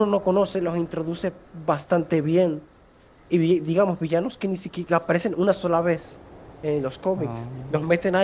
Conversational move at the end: listening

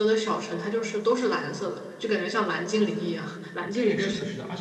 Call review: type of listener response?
taking over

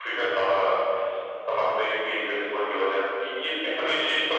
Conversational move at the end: listening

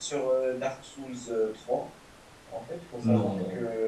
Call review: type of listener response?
listening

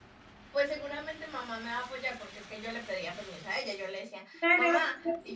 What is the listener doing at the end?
taking over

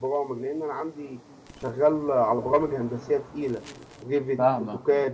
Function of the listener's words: taking over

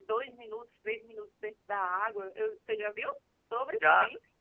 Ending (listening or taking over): taking over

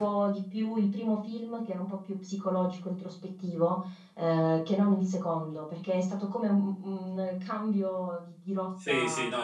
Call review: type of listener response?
taking over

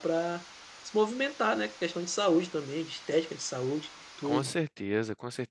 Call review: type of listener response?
taking over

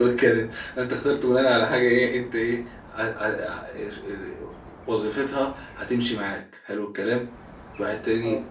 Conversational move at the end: listening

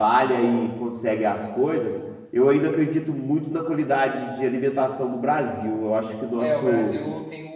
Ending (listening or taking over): taking over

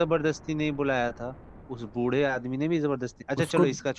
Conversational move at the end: listening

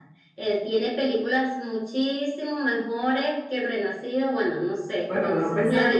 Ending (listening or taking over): taking over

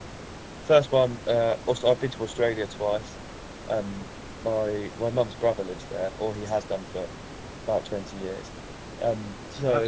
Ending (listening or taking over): taking over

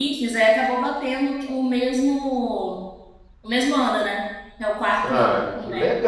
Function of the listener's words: taking over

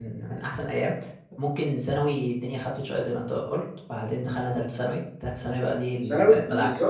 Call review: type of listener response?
taking over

